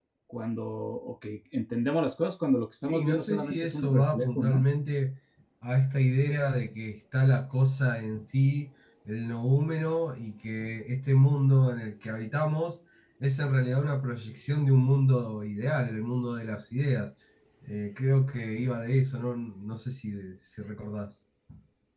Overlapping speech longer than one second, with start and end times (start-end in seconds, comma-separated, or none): 2.8-4.6